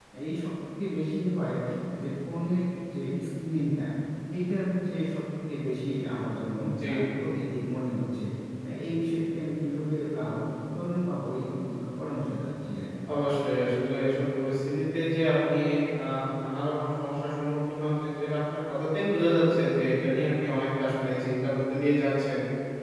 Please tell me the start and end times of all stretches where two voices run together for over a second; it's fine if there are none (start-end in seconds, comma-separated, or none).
none